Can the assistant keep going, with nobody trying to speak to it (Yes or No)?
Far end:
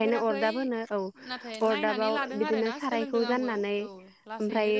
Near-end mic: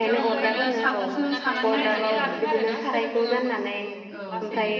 No